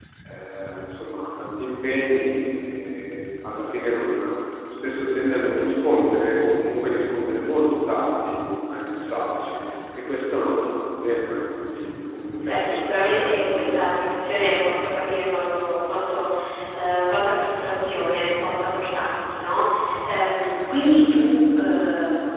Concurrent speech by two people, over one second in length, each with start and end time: 12.5-14.0

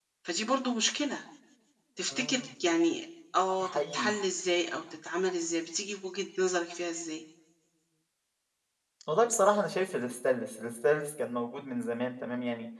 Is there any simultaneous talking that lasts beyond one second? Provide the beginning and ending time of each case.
none

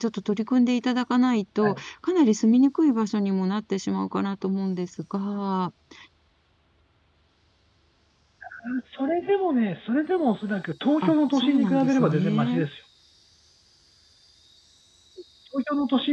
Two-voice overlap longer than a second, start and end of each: 11.0-12.6

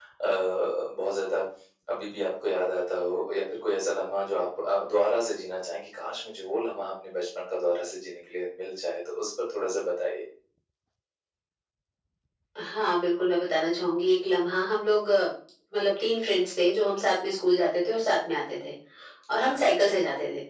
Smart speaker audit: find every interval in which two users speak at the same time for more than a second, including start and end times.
none

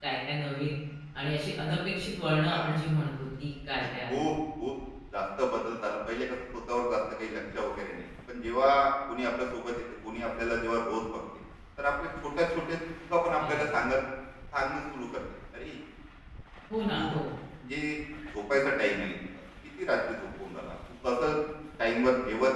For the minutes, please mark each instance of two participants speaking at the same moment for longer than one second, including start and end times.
none

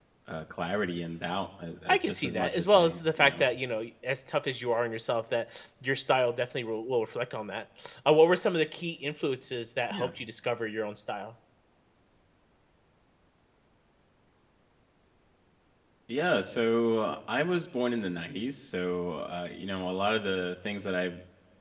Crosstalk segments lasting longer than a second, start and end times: 1.9-3.4

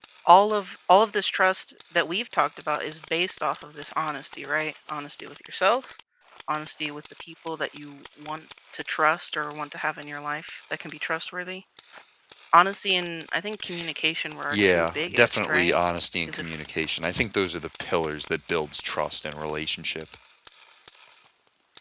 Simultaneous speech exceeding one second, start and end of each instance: 14.5-15.8

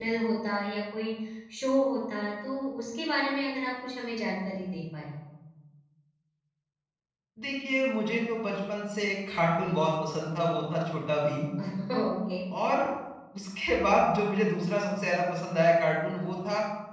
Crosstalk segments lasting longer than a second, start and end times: none

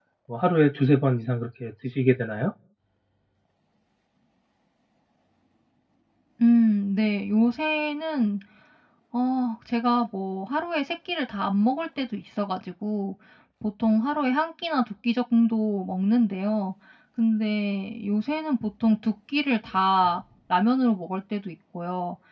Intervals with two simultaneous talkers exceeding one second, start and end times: none

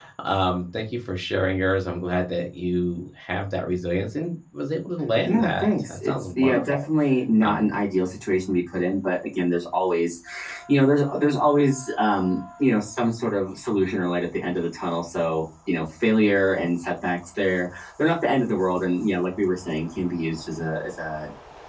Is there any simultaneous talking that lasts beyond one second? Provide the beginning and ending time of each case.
5.2-6.8

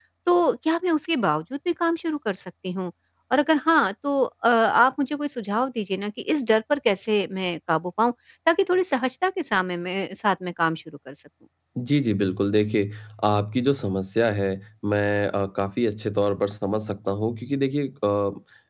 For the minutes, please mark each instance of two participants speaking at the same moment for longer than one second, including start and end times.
none

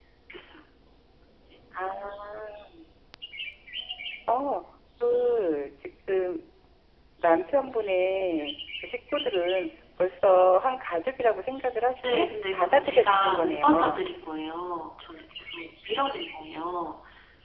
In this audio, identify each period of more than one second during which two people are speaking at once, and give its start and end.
12.1-14.0

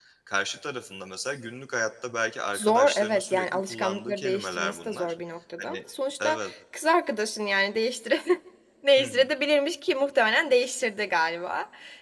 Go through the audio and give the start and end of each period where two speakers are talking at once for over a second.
2.5-5.1

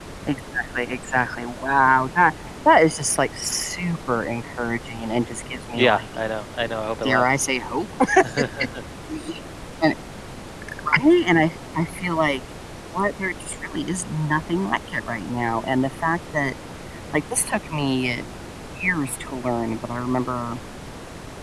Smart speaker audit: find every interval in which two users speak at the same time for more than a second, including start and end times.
none

